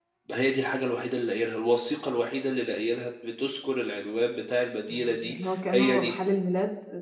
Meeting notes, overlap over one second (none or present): present